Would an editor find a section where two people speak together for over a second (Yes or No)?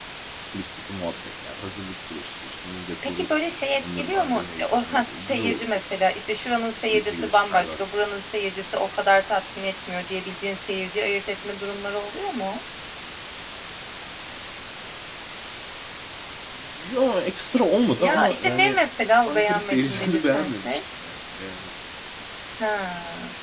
Yes